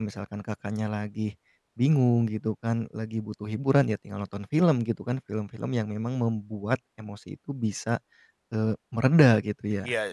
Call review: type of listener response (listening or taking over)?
taking over